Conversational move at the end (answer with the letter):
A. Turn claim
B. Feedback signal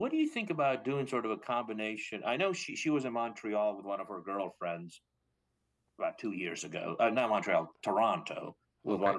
B